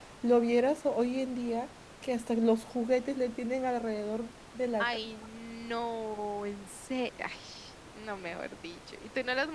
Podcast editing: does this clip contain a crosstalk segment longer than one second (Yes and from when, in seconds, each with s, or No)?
No